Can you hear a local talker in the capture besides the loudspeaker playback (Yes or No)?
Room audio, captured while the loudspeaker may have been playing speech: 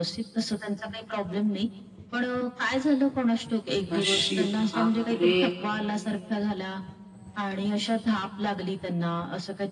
Yes